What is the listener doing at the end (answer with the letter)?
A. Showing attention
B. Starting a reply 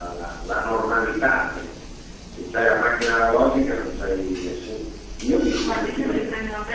B